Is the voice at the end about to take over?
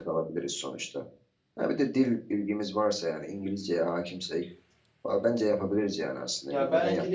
Yes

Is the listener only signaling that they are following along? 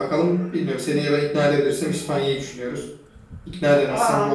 Yes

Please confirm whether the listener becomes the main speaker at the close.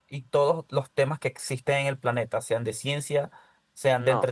No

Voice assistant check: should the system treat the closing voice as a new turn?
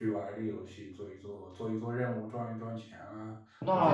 Yes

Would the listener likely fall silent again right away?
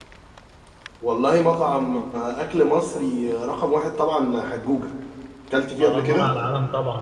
No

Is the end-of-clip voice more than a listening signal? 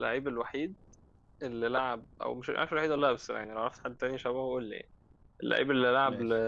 No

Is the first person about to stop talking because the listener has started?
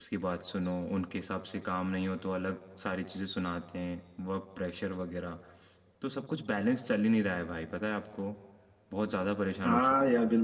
Yes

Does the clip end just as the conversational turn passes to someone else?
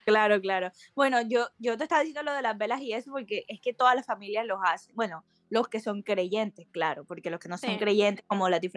No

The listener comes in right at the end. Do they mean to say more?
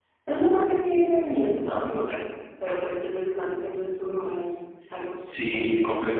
Yes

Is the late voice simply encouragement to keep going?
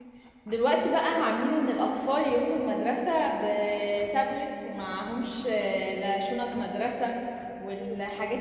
Yes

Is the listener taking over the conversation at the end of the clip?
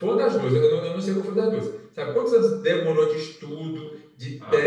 No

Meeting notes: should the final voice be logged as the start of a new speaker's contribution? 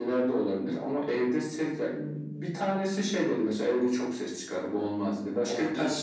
No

